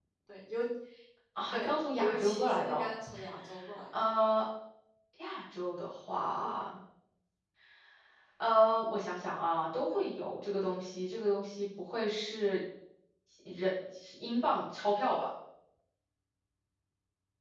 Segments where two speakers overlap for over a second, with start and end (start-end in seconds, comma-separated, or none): 1.5-2.8